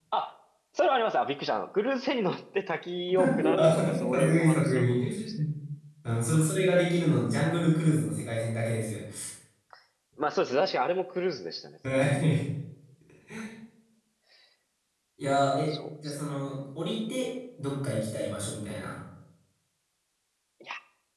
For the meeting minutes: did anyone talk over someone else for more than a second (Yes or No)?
Yes